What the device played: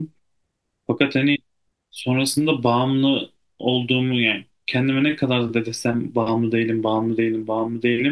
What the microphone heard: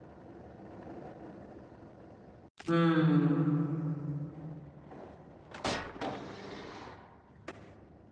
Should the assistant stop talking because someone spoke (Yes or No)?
Yes